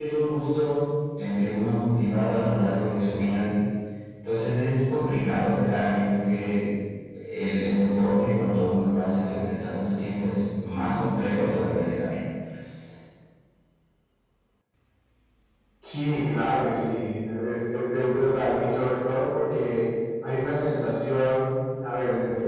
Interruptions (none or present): none